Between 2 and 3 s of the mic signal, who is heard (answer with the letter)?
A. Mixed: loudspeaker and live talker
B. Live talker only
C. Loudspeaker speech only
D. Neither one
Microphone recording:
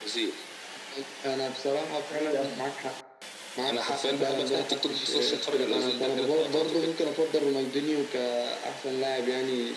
C